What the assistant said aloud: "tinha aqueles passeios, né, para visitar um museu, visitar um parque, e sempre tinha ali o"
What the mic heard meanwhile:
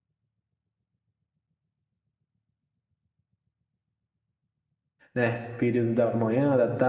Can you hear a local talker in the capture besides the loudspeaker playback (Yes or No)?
Yes